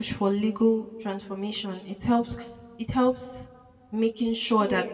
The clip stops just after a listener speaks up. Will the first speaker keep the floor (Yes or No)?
Yes